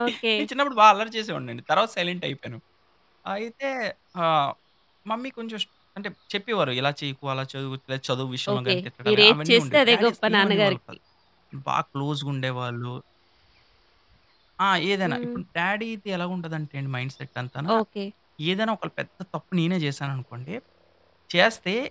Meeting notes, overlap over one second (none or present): present